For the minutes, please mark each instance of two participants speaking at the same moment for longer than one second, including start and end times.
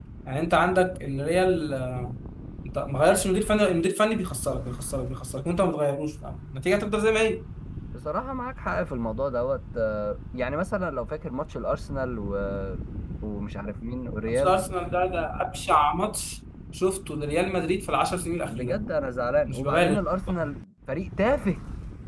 none

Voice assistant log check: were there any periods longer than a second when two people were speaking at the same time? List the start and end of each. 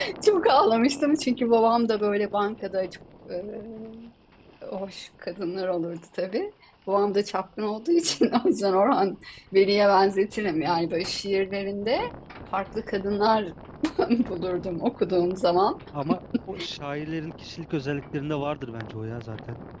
none

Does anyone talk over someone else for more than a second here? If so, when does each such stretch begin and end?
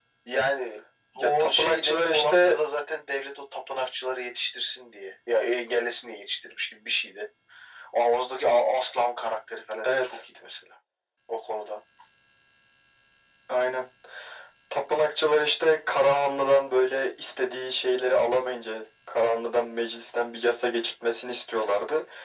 1.1-2.6

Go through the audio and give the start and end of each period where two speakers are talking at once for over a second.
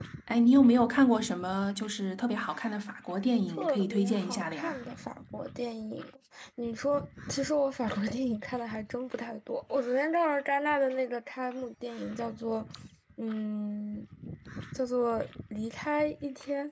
3.6-4.8

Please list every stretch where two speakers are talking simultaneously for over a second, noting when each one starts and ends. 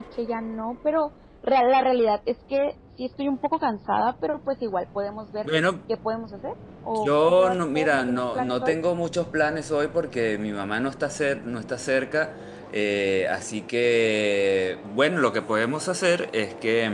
7.0-8.7

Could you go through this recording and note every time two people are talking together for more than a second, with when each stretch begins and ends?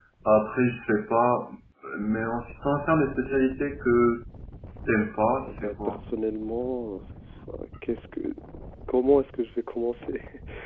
none

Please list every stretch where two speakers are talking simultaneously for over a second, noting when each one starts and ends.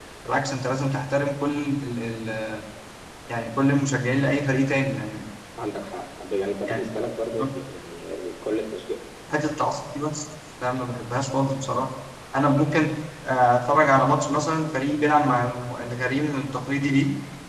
none

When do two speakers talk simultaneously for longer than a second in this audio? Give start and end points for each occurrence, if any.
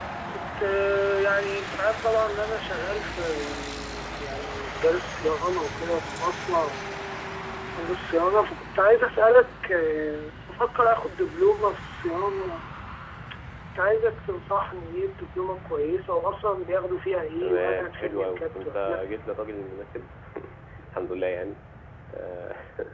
17.4-19.1

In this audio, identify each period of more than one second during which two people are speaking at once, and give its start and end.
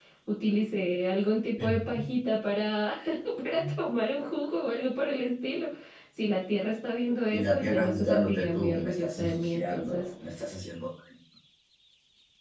7.3-10.1

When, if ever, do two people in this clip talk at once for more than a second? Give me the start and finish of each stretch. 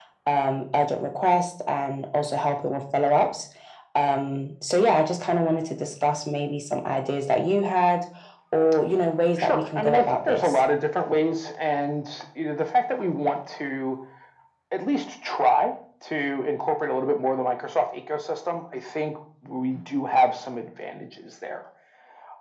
9.4-10.6

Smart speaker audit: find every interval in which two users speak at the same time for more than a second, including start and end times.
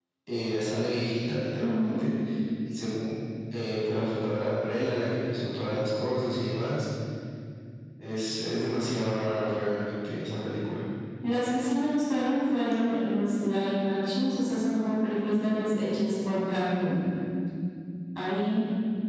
none

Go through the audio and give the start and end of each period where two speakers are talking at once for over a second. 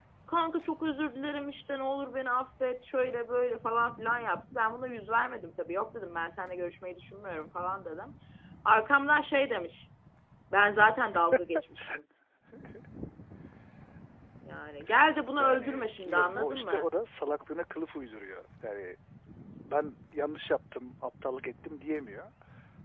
15.4-16.9

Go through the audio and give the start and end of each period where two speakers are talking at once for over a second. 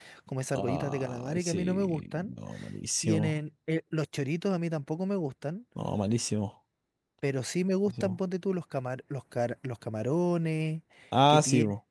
0.5-2.3

